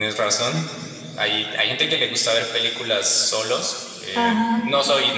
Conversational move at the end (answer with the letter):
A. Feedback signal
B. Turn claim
A